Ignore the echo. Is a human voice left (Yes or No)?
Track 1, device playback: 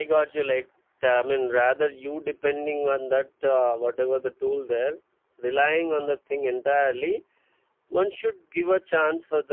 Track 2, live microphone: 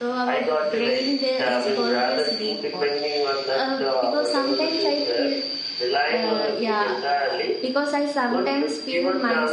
Yes